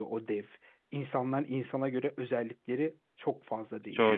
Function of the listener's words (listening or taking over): taking over